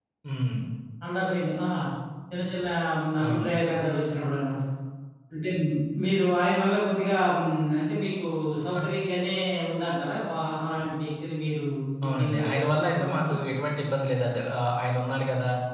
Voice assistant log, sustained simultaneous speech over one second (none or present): present